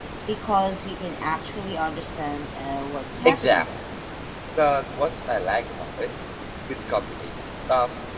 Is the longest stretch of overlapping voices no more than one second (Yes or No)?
Yes